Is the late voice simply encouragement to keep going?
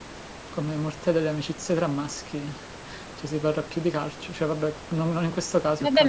No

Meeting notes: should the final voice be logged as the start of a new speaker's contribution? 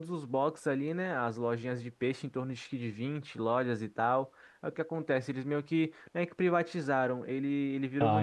No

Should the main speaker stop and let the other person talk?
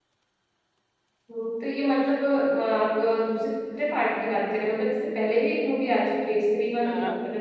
Yes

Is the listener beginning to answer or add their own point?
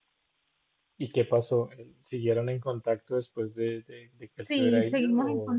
Yes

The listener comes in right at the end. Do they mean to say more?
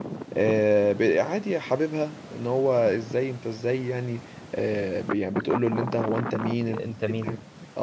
No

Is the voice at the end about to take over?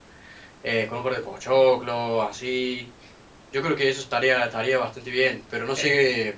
No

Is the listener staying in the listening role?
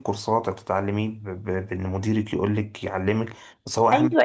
No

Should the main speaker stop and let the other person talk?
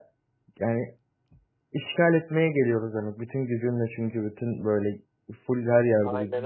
No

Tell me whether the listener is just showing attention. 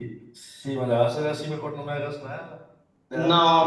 No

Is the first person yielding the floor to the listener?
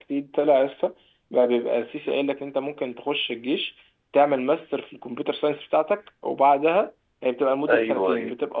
No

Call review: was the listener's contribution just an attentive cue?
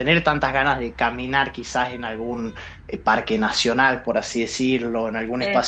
Yes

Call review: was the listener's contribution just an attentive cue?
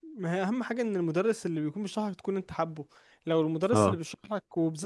Yes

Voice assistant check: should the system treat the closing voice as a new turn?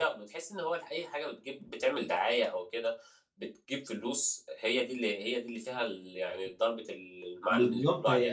Yes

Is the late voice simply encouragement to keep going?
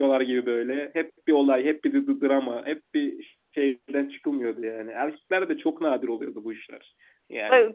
Yes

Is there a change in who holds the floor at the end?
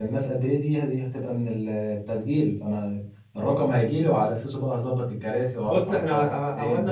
Yes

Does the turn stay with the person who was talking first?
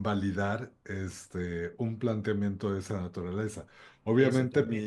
Yes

